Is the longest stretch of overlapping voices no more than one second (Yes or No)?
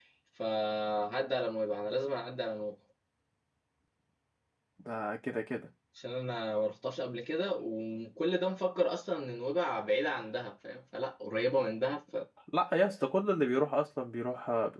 Yes